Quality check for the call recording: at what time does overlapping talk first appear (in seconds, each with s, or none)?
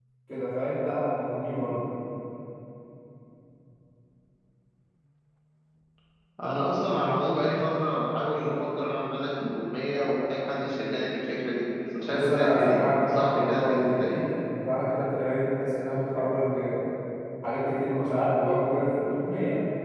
12.0 s